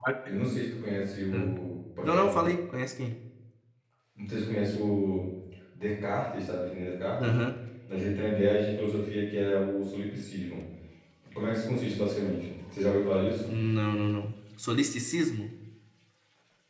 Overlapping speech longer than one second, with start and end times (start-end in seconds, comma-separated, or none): none